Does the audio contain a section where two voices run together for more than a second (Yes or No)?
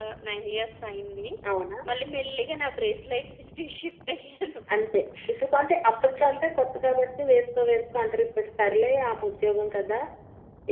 No